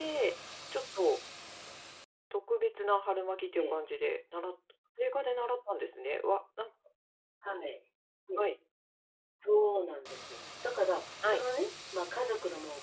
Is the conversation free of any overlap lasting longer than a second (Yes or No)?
Yes